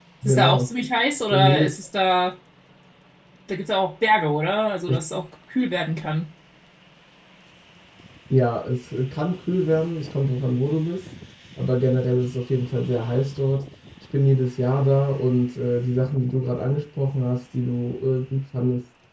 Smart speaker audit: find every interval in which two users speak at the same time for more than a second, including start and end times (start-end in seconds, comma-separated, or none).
none